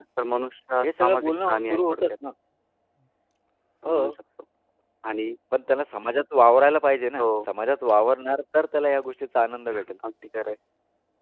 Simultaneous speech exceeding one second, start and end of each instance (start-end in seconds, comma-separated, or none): 0.8-2.1